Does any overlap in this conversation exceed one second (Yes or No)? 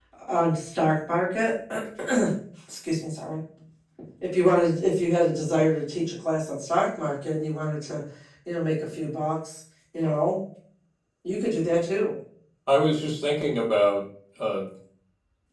No